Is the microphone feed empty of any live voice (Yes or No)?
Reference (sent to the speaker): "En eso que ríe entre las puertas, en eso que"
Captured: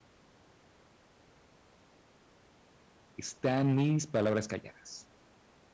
No